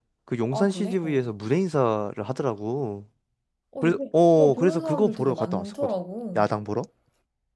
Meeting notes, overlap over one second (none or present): present